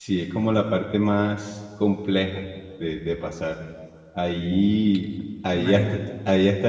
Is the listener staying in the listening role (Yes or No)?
Yes